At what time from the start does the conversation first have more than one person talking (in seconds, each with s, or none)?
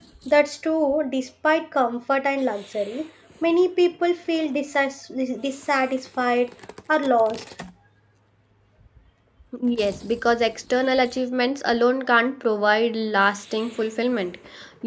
none